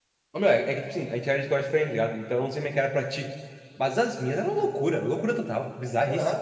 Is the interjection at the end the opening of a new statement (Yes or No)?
Yes